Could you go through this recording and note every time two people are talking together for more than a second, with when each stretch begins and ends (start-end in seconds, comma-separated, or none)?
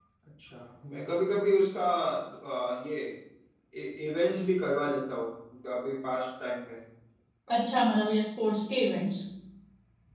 none